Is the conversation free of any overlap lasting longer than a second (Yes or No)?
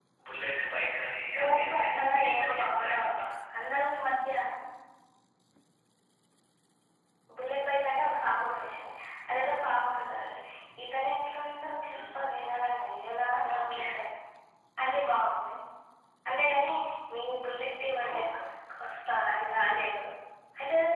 No